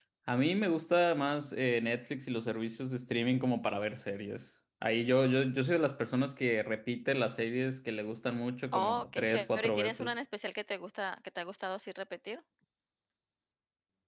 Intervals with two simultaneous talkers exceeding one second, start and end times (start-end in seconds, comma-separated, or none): 8.7-10.1